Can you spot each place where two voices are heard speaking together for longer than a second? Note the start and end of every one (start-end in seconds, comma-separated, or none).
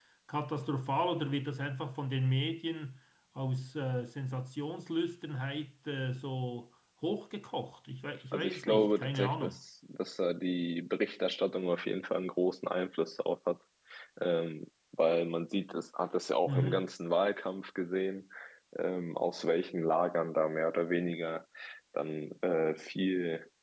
8.3-9.6